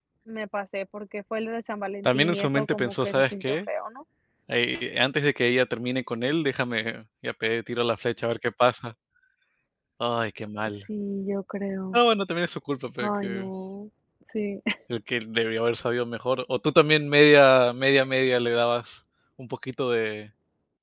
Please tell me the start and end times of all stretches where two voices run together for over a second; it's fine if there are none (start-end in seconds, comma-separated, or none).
2.0-3.6